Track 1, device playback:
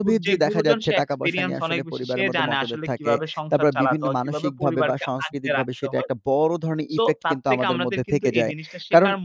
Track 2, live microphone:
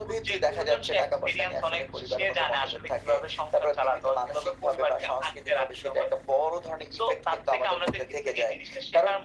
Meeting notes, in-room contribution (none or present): none